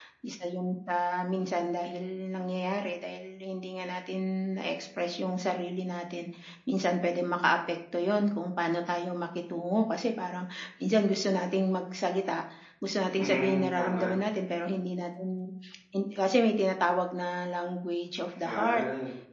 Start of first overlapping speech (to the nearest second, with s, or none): 13 s